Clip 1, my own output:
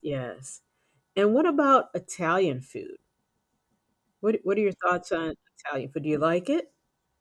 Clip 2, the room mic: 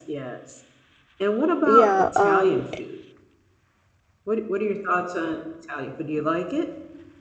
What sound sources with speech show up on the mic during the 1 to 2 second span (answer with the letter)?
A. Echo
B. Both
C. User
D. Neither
B